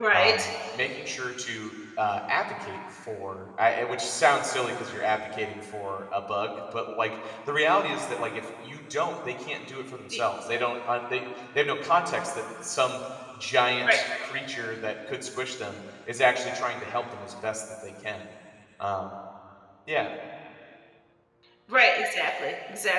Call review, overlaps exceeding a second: none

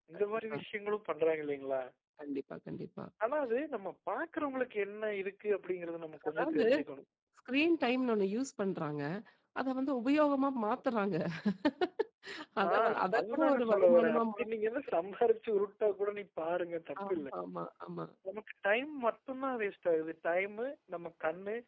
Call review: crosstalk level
present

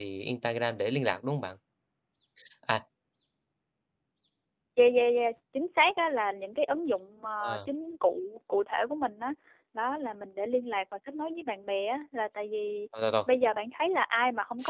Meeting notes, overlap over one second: none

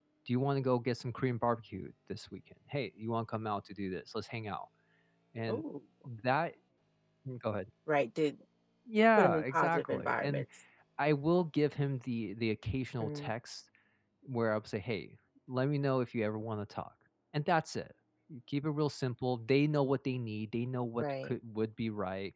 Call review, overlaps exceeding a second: present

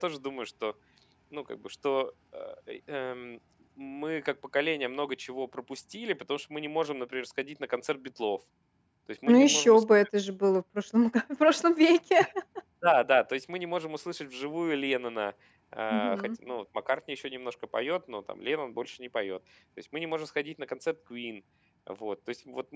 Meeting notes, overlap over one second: none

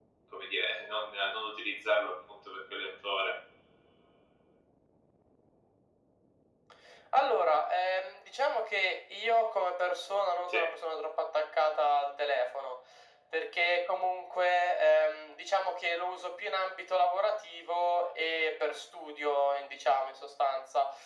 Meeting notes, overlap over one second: none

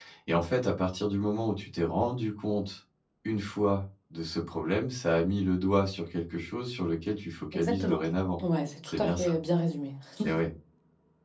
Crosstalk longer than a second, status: none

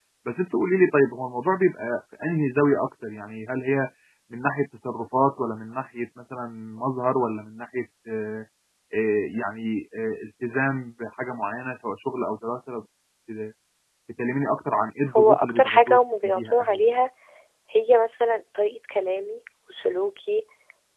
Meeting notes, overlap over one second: present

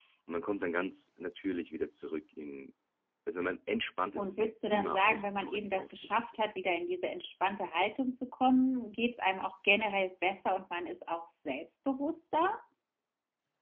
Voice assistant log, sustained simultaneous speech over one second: present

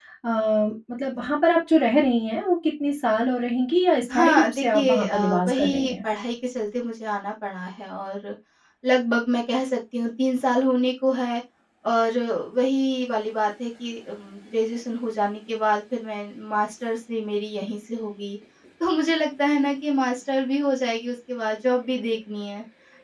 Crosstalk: present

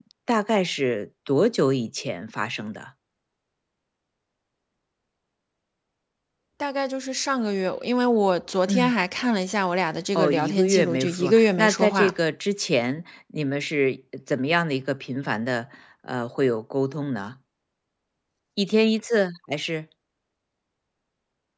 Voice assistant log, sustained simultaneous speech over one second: present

